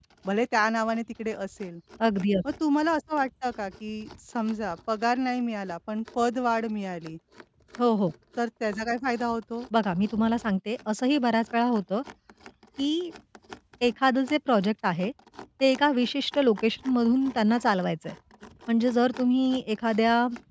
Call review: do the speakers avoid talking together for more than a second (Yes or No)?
Yes